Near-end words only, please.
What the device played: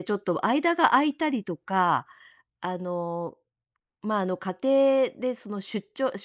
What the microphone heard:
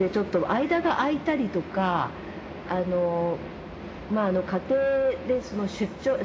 none

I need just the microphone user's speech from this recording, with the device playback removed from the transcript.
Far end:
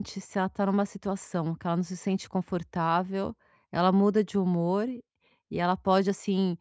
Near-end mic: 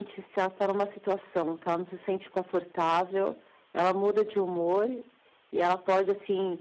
none

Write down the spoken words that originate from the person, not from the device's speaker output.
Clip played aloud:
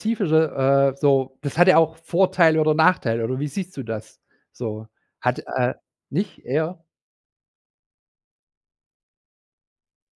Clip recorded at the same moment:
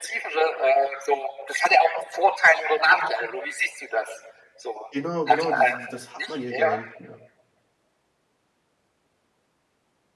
genau, genau, diese die das hat man ja gar nicht mehr.

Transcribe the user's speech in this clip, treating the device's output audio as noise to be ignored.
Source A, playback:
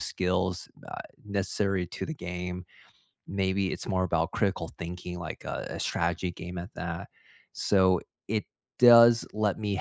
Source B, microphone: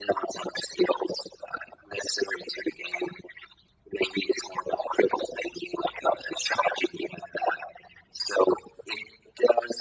none

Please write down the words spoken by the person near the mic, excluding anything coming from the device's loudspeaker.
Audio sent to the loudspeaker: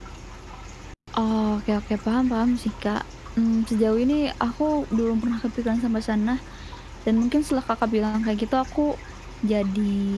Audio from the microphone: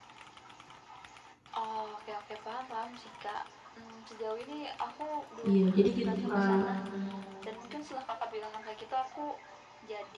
iya, jadi gitu, Kak.

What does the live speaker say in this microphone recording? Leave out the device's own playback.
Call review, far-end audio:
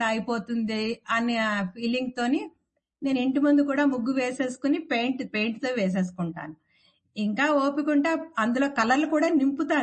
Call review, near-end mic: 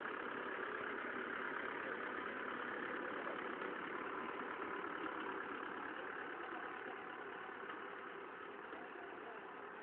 none

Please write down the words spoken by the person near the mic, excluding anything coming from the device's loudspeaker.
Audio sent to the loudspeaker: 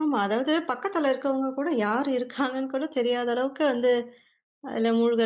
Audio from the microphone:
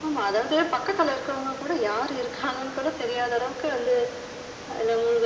none

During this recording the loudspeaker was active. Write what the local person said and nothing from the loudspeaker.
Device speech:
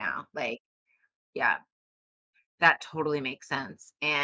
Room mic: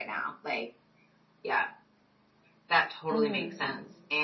hmm

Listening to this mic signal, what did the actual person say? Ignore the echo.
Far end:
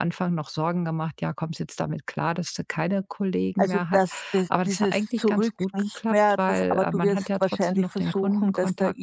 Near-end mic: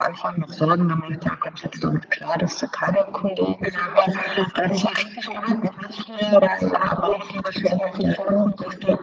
none

